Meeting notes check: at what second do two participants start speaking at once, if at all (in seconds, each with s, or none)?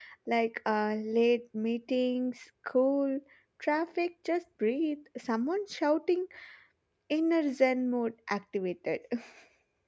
none